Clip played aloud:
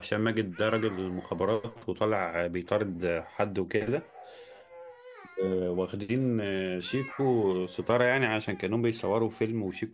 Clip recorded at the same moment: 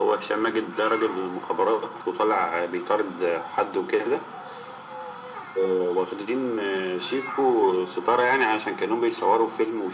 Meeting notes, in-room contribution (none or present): none